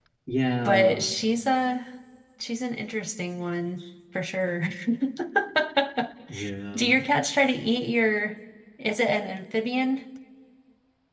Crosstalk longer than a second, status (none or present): none